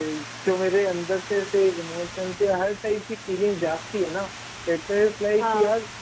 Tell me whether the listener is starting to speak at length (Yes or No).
No